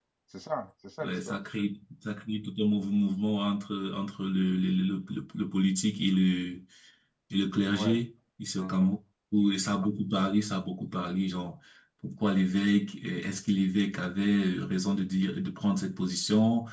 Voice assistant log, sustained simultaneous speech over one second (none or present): none